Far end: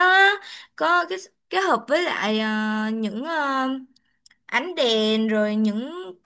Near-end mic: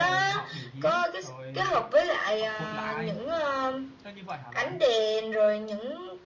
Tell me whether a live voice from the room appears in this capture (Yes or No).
Yes